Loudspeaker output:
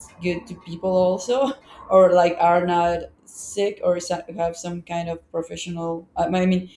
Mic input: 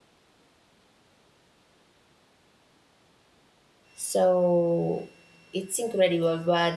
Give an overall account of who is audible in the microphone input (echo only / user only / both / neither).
user only